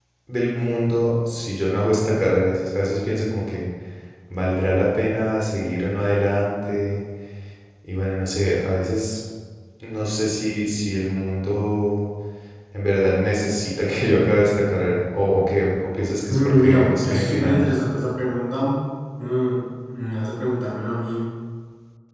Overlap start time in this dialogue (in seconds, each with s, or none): 16.3 s